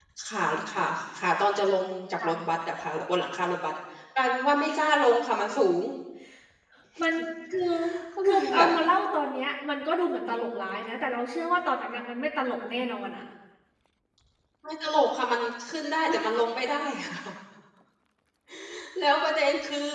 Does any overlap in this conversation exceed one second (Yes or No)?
No